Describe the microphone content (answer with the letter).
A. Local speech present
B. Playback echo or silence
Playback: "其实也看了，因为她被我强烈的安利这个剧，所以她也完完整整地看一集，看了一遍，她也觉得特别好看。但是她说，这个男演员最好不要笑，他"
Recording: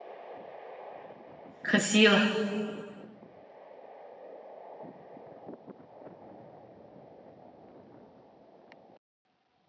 A